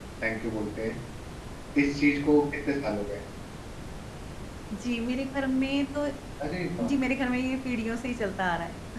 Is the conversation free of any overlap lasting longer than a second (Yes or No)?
Yes